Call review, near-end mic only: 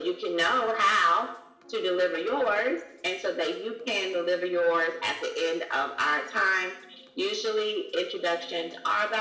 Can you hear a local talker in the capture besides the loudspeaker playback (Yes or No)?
No